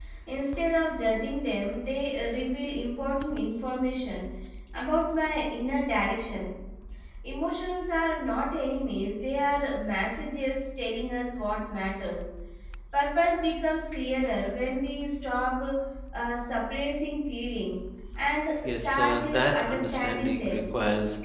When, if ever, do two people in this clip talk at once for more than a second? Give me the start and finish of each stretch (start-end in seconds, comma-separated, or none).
18.6-20.6